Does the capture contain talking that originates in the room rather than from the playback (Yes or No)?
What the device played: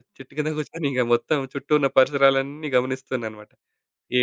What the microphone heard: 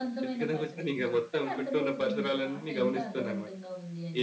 Yes